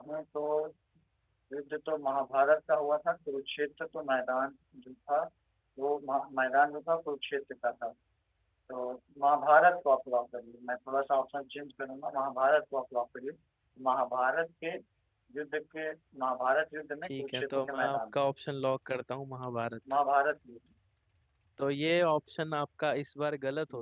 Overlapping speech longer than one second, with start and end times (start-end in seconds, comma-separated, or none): 17.0-18.2